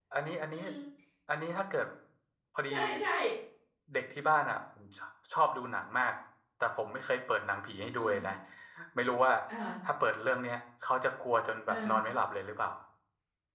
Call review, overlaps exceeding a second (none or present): none